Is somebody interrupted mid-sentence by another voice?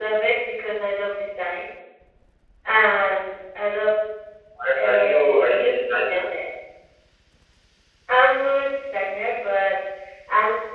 Yes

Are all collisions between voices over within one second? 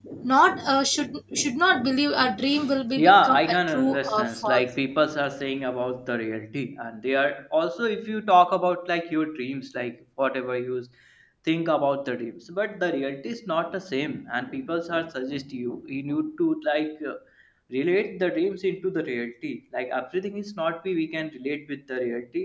No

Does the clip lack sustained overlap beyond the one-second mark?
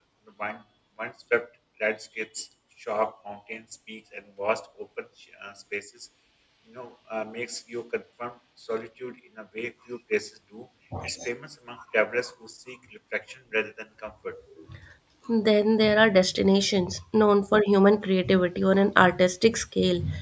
Yes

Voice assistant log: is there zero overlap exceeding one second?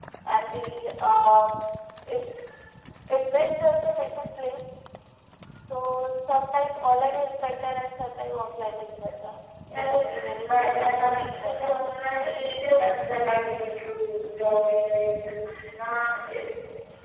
No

